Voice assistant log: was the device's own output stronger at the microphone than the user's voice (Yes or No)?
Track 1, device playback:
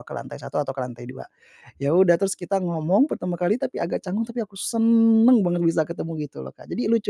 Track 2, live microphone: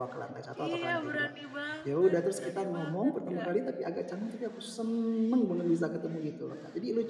Yes